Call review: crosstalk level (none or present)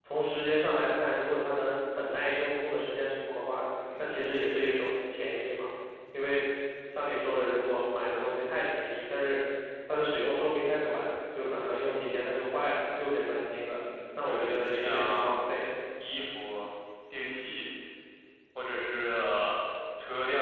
present